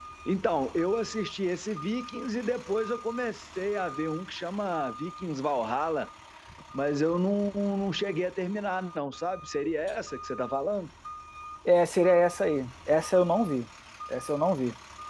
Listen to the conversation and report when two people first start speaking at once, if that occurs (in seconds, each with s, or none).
none